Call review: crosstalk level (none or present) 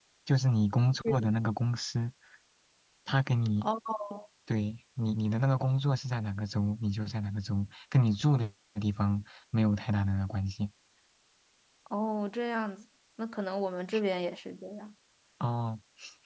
none